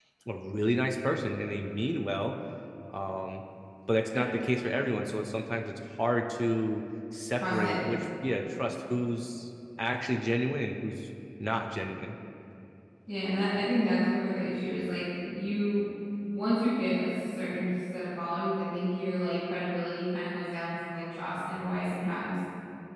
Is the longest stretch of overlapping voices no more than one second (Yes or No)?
Yes